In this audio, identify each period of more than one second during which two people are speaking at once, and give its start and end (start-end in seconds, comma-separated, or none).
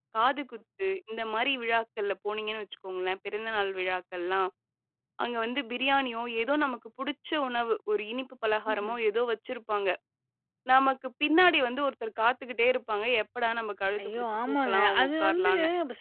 14.0-15.5